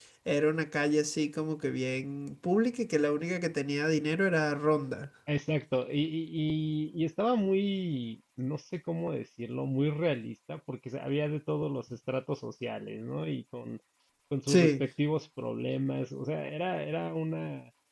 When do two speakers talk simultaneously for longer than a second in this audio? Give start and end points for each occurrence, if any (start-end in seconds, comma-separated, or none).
none